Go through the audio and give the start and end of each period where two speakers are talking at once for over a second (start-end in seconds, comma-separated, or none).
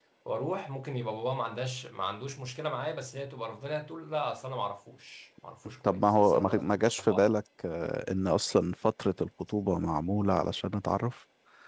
5.8-7.3